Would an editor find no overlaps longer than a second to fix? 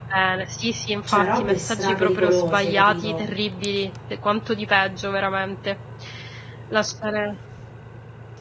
No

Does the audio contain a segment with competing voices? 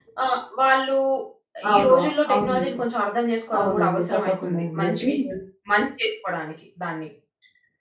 Yes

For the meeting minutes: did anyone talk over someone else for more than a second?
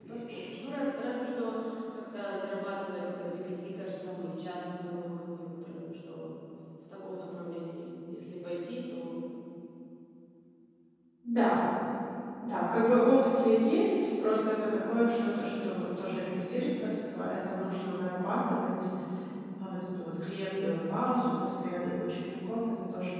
No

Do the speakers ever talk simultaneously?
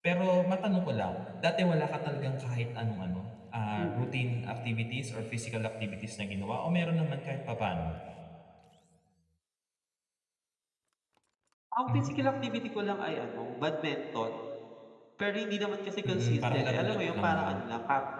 Yes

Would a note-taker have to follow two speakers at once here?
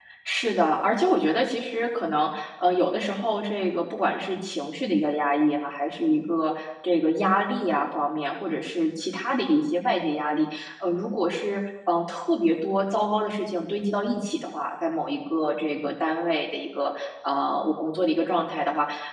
No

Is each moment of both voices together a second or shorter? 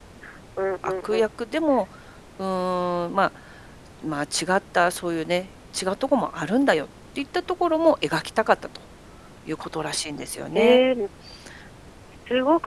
Yes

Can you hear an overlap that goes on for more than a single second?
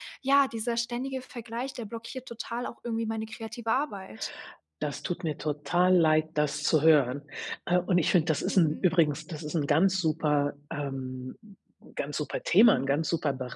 No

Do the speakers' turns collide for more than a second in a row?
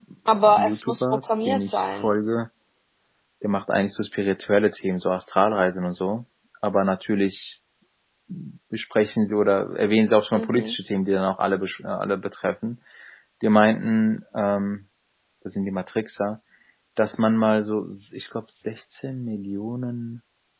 Yes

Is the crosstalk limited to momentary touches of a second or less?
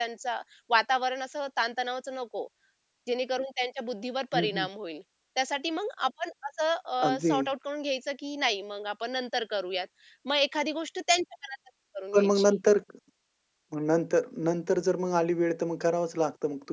Yes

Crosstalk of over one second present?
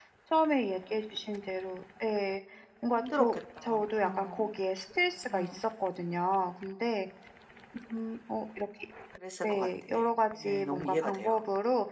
Yes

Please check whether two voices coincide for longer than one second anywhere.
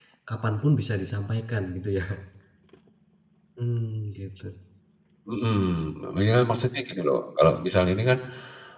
No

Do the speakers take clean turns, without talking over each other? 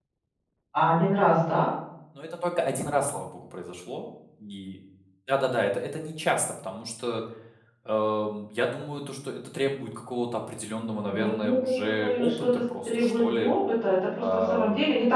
No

